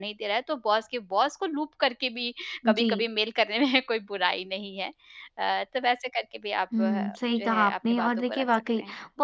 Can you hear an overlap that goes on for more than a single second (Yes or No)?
Yes